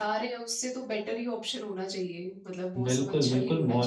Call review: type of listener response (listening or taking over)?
taking over